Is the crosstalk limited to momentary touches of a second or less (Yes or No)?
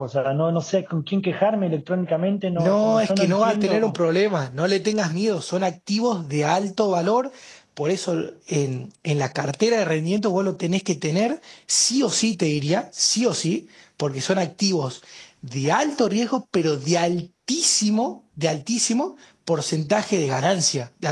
No